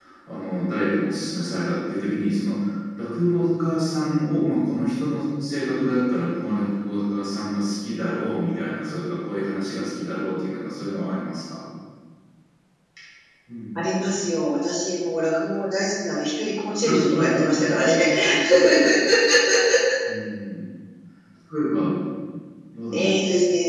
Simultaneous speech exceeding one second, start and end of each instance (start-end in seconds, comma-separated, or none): none